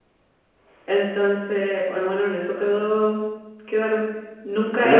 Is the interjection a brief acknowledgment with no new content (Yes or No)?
No